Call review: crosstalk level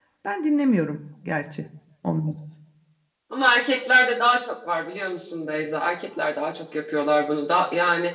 none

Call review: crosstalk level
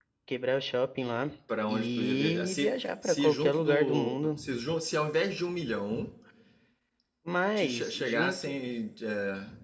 present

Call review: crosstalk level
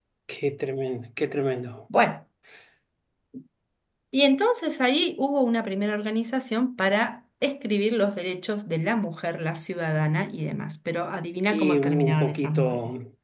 present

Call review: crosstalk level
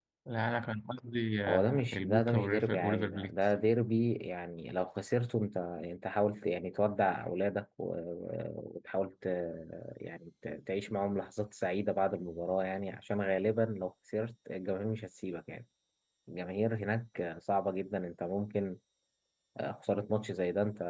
present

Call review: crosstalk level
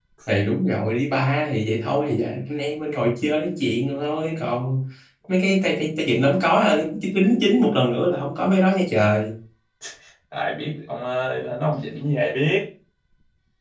none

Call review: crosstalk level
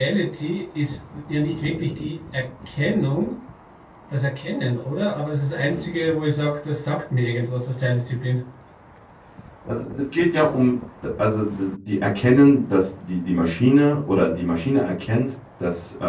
none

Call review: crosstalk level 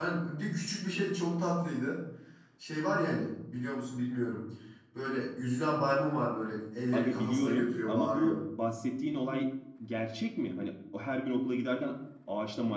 present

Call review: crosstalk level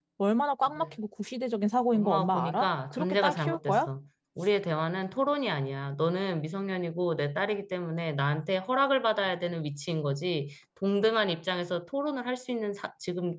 present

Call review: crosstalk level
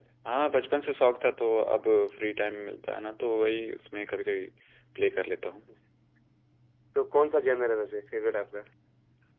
none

